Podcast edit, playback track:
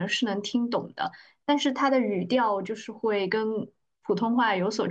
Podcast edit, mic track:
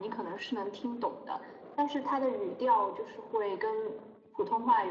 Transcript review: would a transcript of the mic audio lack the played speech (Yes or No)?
No